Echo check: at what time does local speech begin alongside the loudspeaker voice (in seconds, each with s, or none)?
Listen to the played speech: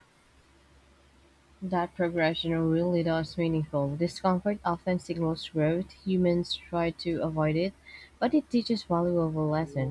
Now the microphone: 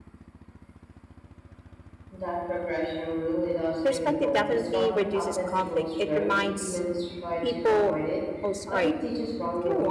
3.8 s